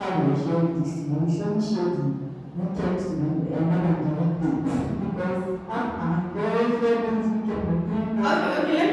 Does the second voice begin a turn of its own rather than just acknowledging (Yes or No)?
Yes